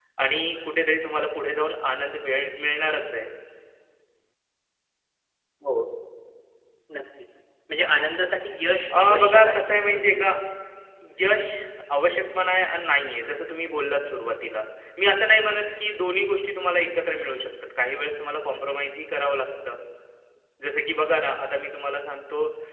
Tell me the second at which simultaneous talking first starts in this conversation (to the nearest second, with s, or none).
9 s